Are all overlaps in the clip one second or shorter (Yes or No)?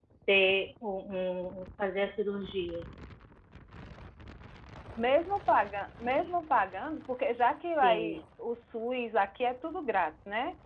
Yes